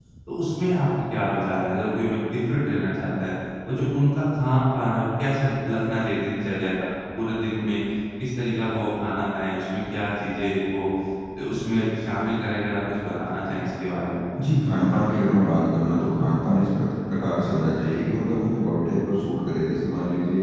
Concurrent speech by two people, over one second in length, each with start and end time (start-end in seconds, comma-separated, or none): none